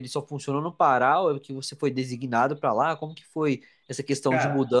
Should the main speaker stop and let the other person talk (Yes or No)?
No